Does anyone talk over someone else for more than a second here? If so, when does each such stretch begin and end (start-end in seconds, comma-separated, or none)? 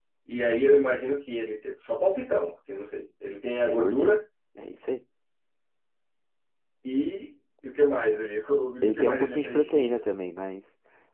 8.8-10.0